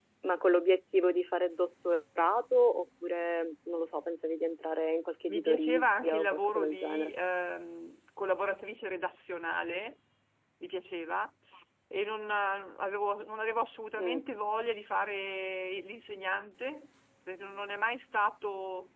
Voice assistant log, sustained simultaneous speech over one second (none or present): present